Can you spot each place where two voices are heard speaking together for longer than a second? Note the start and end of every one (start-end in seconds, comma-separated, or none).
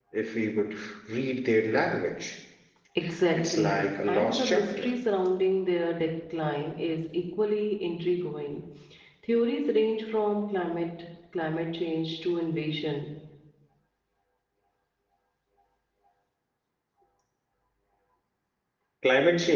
3.3-4.9